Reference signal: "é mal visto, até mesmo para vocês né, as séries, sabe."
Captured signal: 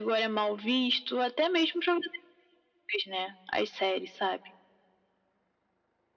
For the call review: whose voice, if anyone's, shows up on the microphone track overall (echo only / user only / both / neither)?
echo only